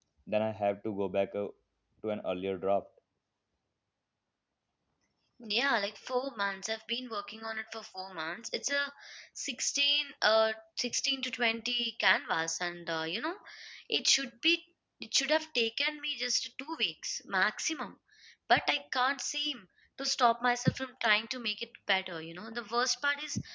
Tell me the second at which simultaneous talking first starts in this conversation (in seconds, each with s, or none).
none